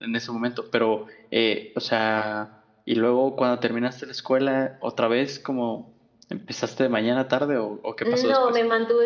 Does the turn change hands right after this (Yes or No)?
Yes